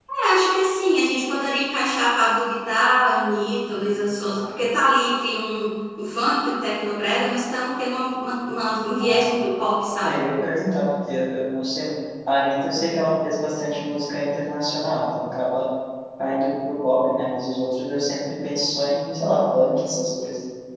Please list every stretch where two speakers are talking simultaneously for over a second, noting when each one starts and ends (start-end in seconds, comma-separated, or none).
none